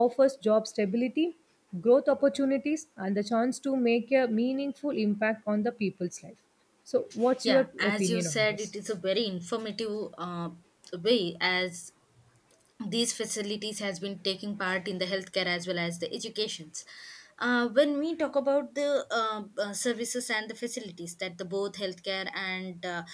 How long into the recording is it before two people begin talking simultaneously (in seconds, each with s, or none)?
7.4 s